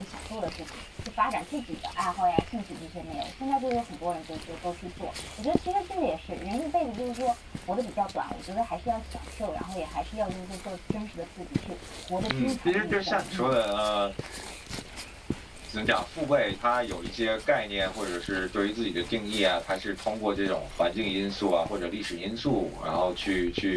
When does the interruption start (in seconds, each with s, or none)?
12.3 s